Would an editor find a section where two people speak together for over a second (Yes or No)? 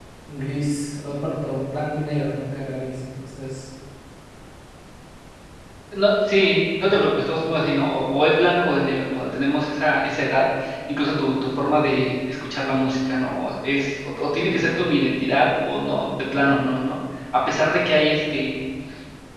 No